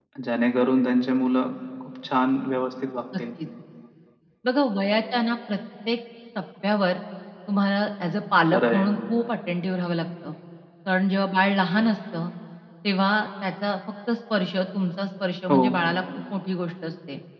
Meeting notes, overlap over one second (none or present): none